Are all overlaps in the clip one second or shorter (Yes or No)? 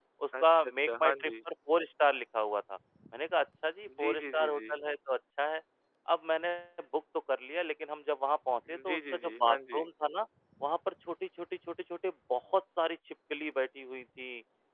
No